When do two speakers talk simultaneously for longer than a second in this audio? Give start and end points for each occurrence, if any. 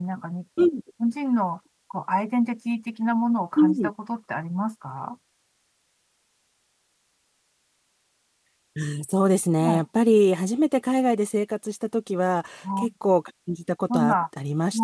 none

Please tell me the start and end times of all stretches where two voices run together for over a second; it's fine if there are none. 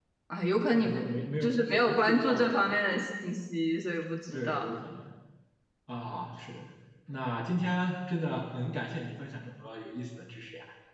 1.4-2.7

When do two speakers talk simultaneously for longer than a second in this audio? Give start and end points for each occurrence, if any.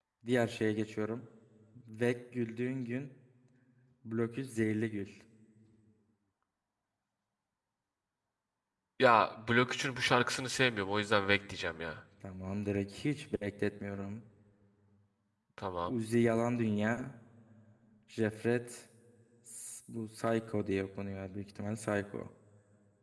none

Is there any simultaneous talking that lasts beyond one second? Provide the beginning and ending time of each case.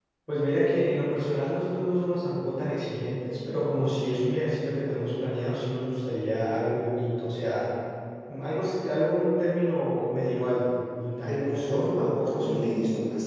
11.2-12.6

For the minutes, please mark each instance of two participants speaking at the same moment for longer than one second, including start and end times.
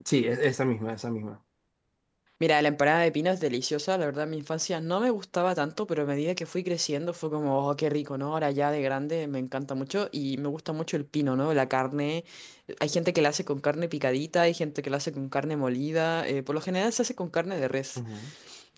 none

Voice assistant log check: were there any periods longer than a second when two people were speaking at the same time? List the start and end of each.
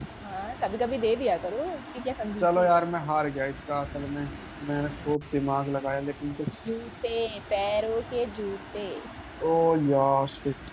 none

